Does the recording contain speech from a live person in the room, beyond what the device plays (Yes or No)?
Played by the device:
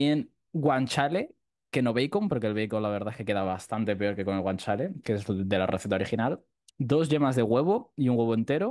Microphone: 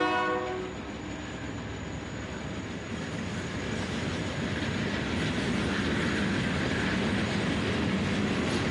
No